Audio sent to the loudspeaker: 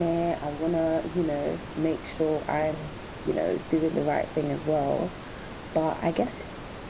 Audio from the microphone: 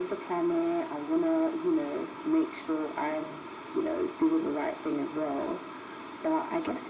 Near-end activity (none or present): none